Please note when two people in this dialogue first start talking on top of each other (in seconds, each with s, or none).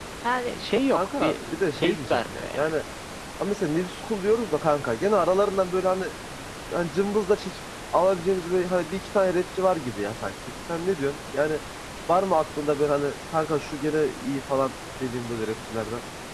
0.9 s